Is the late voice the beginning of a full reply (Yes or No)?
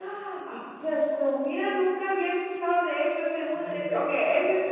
Yes